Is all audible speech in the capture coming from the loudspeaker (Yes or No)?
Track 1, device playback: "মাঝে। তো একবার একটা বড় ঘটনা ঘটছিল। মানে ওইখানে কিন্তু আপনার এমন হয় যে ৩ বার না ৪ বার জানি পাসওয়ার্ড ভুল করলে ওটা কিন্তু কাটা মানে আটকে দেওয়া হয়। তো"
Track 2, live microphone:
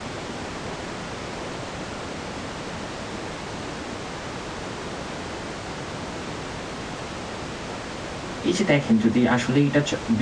No